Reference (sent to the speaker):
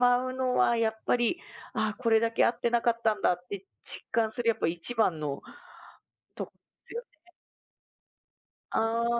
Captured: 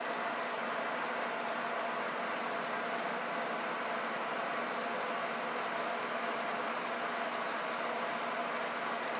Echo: none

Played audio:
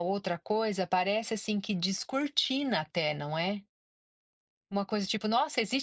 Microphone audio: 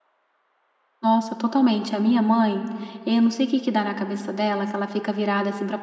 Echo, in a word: none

